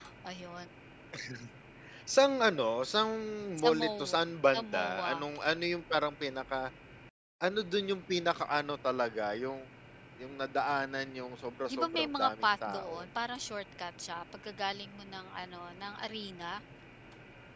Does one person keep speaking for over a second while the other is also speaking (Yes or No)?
Yes